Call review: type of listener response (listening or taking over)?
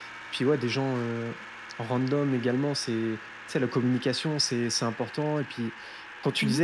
listening